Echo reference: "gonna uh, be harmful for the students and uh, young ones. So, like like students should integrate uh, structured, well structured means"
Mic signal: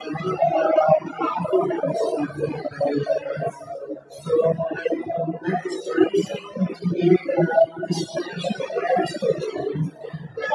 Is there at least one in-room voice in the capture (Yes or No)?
No